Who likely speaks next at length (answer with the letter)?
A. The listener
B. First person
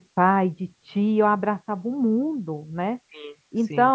B